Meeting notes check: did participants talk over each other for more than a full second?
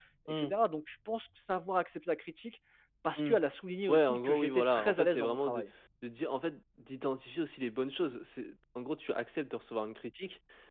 Yes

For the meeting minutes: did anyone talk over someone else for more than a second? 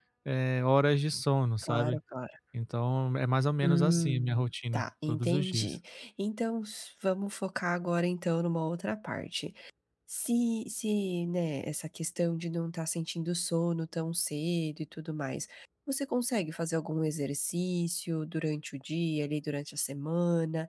Yes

